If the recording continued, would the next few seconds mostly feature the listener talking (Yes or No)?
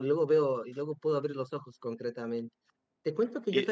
No